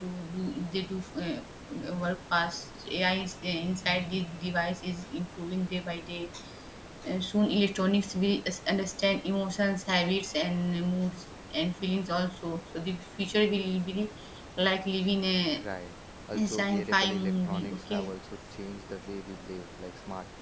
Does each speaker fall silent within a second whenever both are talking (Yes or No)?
No